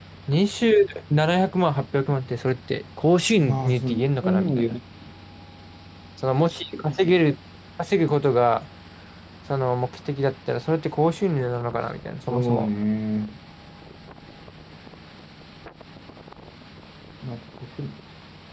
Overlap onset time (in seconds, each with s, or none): 3.4 s